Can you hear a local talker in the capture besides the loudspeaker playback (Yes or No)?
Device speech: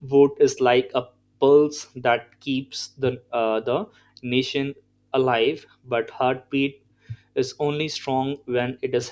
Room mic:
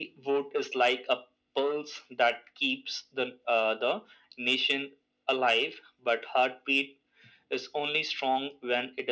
No